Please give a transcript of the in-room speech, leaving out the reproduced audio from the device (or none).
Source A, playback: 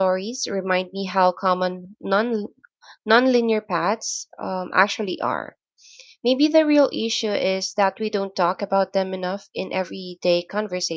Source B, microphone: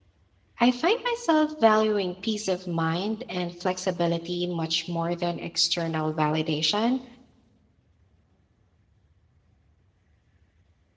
I find myself valuing peace of mind and flexibility much more than external validation.